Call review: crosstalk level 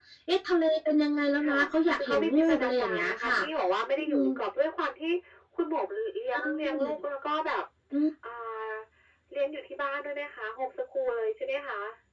present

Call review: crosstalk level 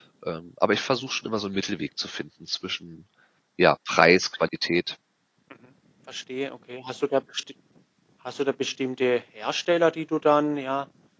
none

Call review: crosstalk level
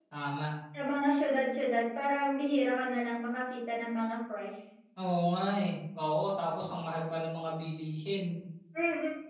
none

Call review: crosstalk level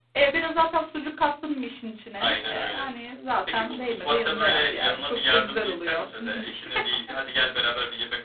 present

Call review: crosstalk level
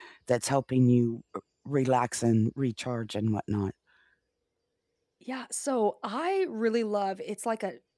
none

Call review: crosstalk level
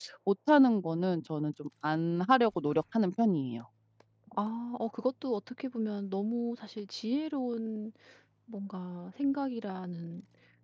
none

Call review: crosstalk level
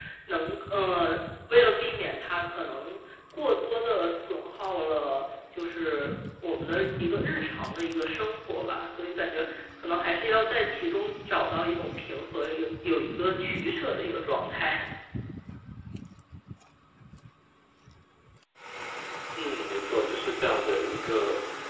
none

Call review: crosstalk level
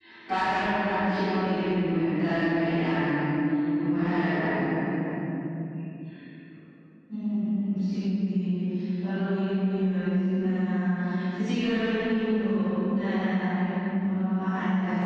none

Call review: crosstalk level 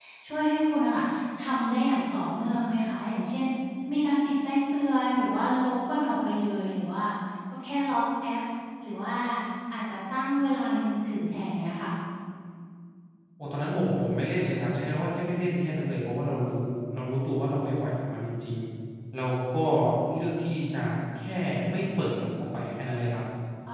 none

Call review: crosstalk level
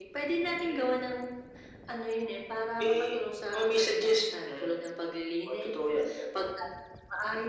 present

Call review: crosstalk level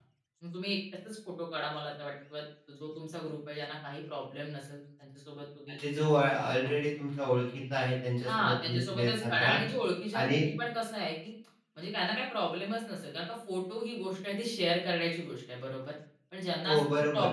present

